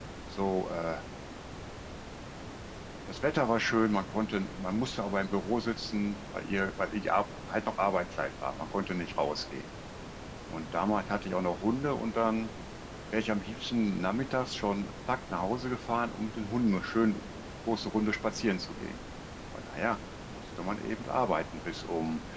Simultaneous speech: No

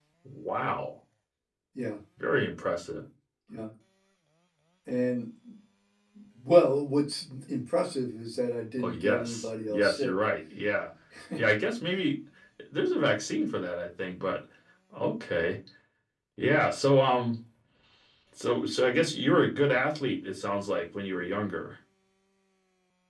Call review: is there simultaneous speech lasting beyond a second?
Yes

